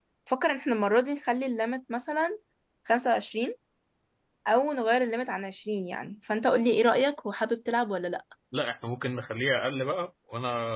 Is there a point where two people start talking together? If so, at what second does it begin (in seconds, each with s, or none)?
none